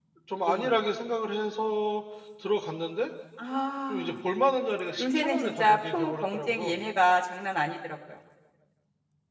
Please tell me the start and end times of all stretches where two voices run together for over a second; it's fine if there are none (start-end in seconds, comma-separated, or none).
5.0-6.8